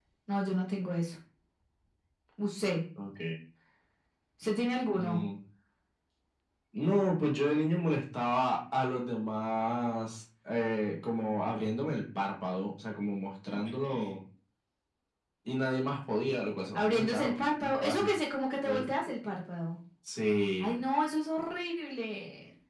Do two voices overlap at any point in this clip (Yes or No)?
Yes